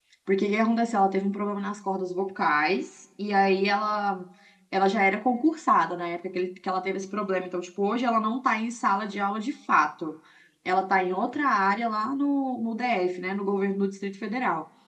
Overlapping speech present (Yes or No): No